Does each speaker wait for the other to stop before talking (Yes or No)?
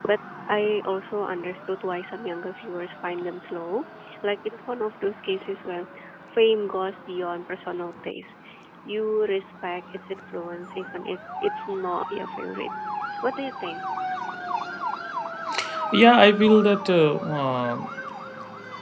Yes